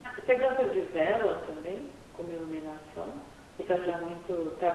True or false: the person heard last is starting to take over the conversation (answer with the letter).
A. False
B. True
A